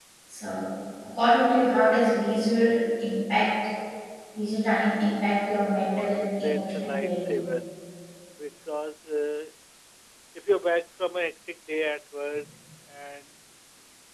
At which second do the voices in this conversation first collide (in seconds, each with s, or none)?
5.7 s